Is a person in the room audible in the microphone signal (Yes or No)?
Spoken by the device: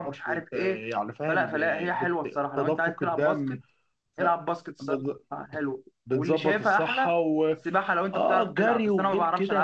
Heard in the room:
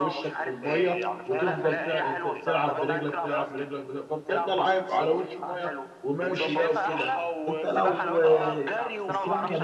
Yes